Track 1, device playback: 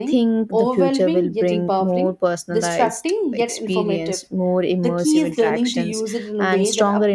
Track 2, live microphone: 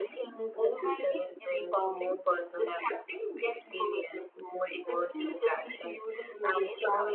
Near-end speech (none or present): none